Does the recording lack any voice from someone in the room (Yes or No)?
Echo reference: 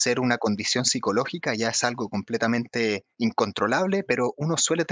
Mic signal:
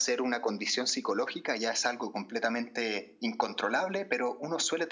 Yes